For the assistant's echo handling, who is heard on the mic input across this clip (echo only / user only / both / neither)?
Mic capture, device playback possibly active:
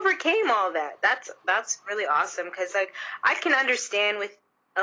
echo only